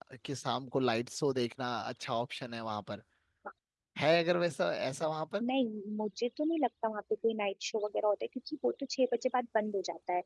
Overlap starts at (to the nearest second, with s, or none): none